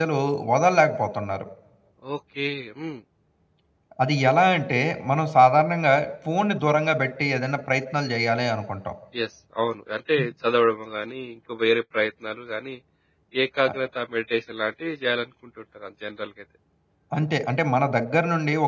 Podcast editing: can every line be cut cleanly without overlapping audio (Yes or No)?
Yes